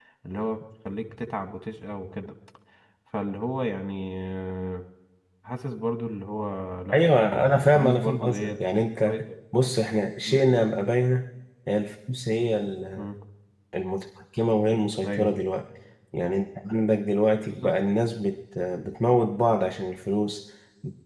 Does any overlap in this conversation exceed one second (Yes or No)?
Yes